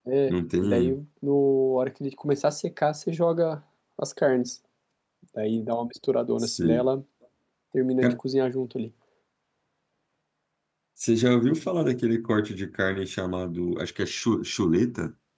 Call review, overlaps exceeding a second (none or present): none